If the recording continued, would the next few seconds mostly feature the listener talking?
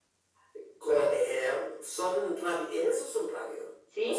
No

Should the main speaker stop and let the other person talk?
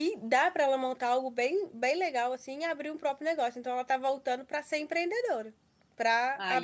No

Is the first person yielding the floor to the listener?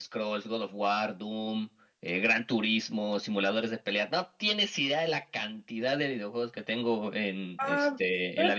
Yes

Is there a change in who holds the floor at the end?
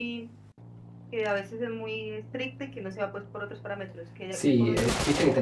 Yes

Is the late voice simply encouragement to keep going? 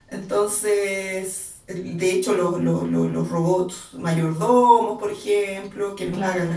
Yes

